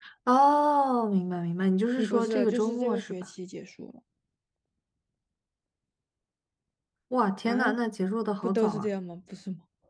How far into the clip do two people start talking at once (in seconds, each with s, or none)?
2.0 s